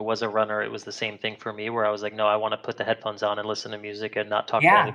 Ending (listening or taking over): taking over